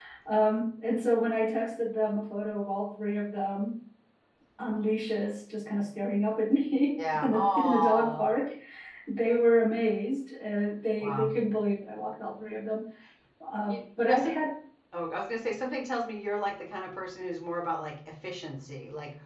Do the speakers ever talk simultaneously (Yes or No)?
Yes